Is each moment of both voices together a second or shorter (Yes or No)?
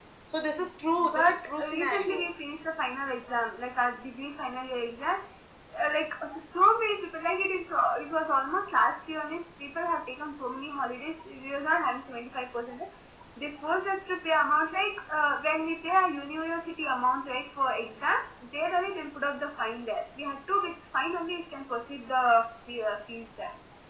No